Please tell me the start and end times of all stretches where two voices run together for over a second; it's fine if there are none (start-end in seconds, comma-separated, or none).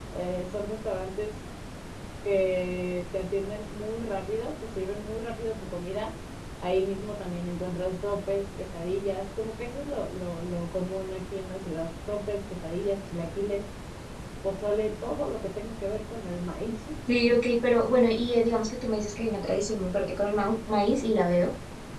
none